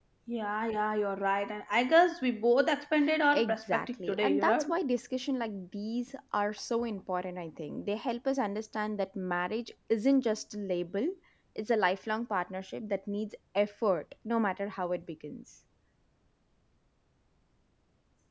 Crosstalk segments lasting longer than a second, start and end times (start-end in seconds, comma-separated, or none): 3.3-4.7